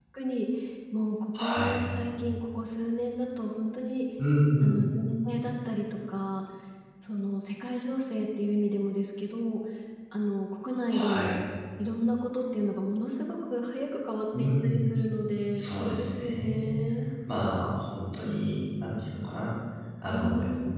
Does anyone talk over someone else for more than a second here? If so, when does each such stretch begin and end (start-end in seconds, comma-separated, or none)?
15.6-16.8